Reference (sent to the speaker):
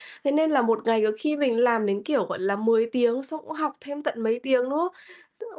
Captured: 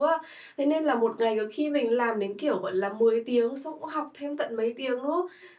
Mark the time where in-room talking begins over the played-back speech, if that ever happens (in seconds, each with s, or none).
none